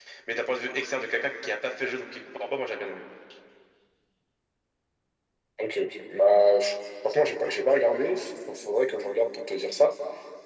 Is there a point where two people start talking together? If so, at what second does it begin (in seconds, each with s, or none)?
none